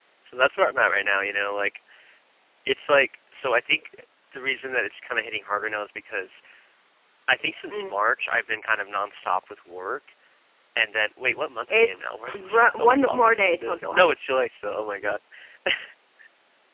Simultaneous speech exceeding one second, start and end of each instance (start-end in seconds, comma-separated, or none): 11.7-14.1